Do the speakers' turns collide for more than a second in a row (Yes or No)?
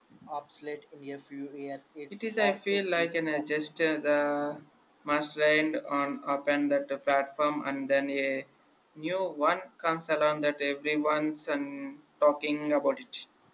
Yes